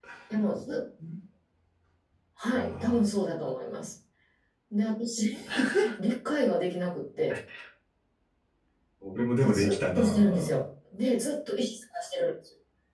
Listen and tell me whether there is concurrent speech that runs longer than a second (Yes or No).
Yes